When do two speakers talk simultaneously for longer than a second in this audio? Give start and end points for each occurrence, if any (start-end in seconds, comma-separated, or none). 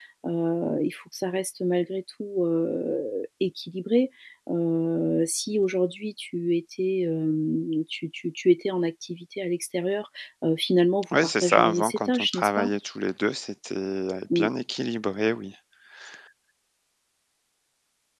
11.1-12.7